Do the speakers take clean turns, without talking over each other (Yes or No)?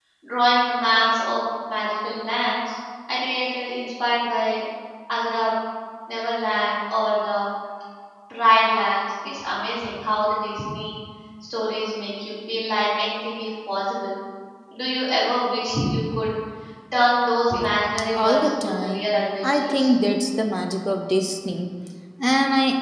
No